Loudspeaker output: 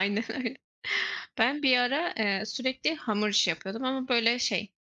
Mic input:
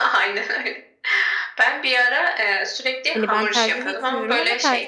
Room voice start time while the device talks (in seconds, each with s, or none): 3.1 s